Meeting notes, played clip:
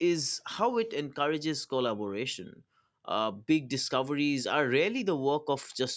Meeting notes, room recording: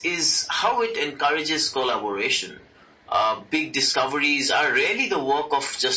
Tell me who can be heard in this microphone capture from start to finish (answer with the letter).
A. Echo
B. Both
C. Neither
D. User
A